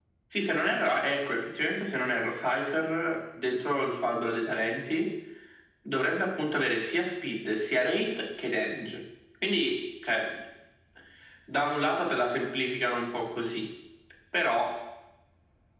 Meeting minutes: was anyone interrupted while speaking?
No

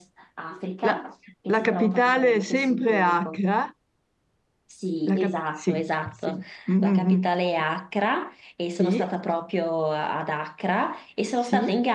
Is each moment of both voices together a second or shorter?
No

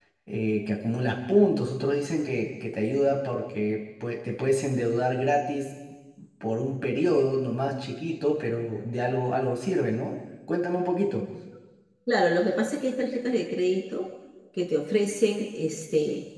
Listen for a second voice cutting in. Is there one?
No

